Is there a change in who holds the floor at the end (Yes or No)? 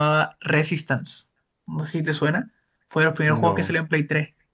No